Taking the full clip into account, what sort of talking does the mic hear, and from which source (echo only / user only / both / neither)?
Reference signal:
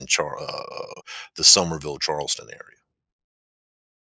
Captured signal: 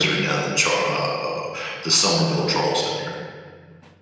echo only